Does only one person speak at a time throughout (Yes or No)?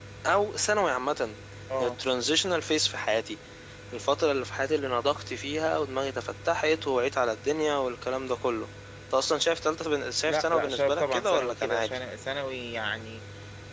No